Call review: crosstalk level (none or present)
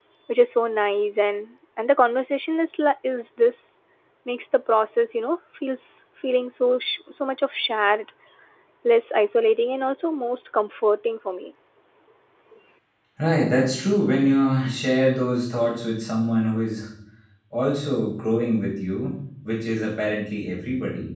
none